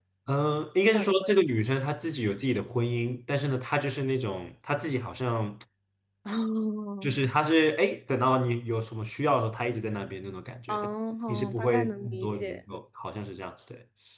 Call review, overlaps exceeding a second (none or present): present